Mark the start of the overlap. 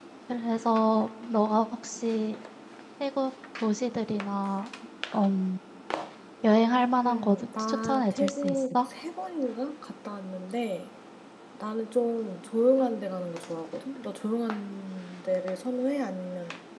7 s

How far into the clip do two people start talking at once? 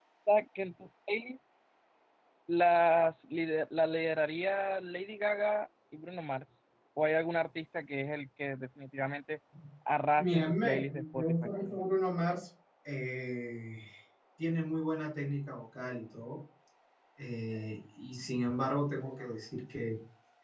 10 s

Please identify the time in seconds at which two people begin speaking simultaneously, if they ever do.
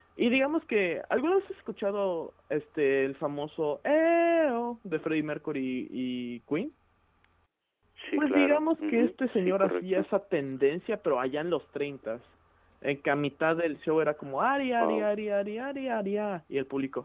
8 s

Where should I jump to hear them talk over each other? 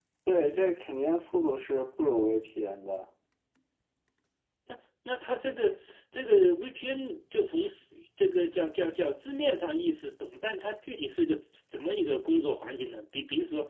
none

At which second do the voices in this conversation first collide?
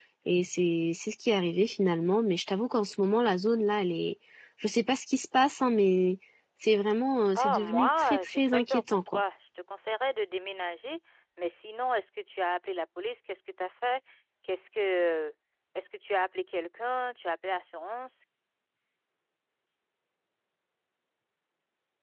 7 s

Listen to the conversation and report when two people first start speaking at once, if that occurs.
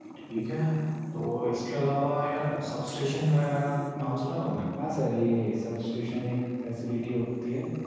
none

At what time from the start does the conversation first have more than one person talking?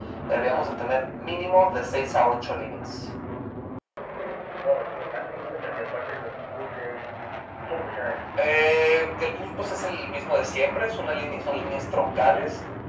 none

